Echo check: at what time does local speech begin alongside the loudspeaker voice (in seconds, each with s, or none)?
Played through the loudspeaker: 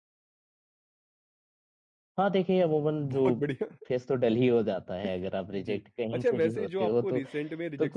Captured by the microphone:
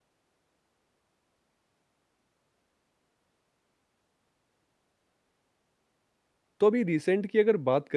6.6 s